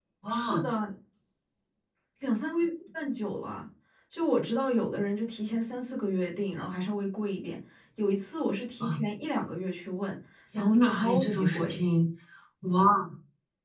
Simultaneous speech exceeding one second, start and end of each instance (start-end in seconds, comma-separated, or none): 10.6-11.8